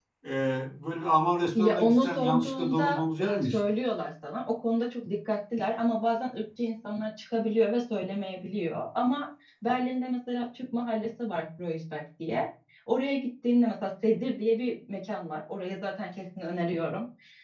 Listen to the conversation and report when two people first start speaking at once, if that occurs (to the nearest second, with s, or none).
2 s